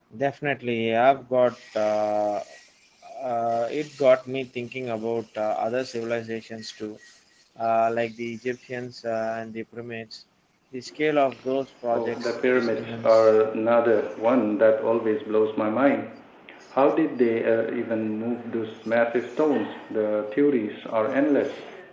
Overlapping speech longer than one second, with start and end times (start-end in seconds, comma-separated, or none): 11.9-13.3